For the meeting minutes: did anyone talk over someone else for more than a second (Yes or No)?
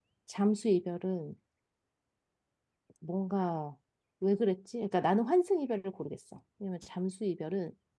No